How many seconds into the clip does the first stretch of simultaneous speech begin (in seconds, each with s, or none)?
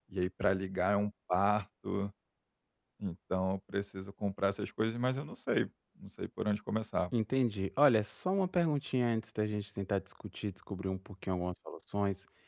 none